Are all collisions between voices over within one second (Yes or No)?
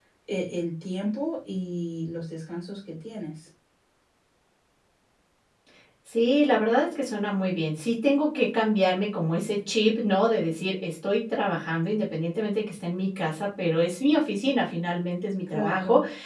Yes